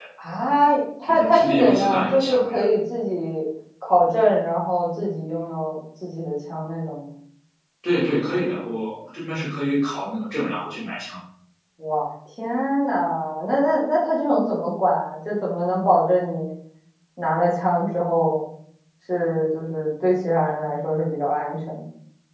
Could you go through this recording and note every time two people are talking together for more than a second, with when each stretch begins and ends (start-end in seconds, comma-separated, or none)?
1.1-2.6